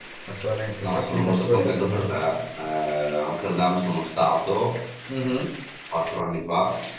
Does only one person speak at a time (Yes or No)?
No